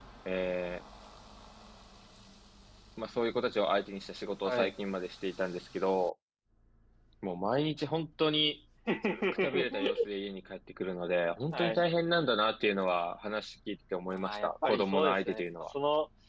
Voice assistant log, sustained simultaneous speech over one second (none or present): present